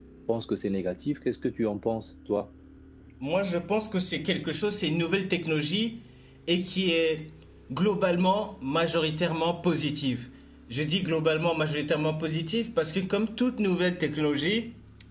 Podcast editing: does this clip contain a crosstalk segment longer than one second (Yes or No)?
No